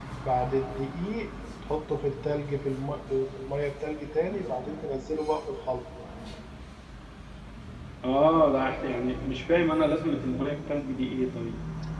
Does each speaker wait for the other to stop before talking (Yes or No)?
Yes